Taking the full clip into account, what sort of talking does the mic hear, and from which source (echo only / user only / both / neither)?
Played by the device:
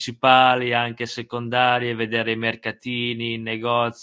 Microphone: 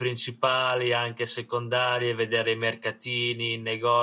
echo only